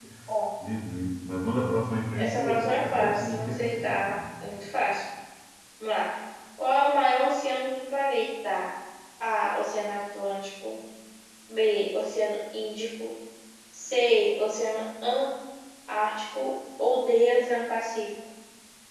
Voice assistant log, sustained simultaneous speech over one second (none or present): present